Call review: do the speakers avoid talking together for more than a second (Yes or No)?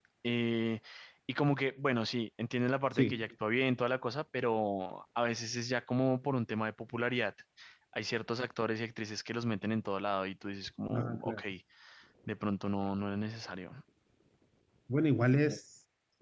Yes